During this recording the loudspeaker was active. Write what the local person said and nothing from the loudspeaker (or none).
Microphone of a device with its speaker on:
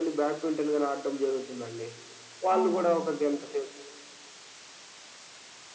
అవునండి.